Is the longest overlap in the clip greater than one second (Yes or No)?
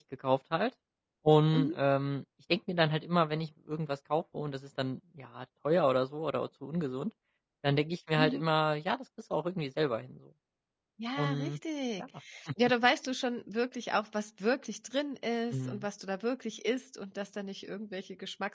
No